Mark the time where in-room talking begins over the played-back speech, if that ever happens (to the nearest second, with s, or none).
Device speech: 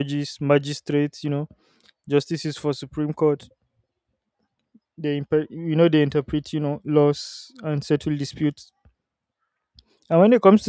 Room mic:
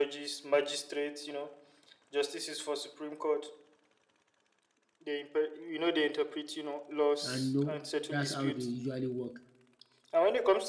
7 s